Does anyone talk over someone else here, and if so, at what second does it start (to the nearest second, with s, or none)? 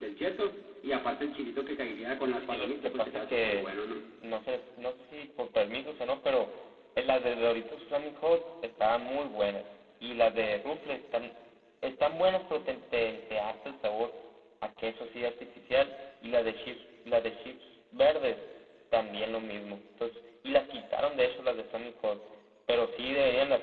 2 s